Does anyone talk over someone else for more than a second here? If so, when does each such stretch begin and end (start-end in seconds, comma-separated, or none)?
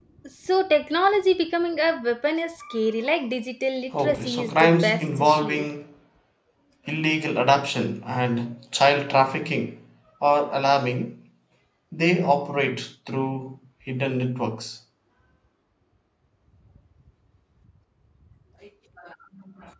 4.0-5.7